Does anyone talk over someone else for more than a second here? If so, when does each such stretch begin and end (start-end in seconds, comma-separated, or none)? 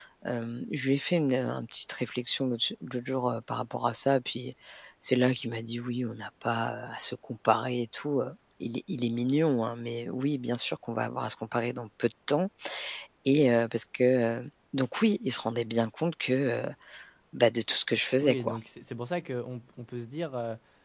none